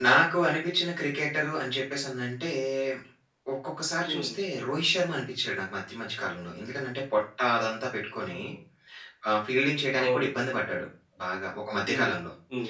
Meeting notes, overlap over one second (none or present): none